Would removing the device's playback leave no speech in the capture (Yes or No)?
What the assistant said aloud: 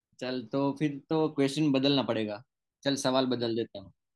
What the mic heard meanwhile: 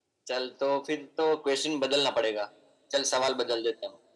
Yes